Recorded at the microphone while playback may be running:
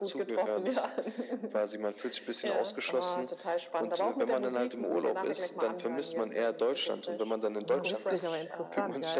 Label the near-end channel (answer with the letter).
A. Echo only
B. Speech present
B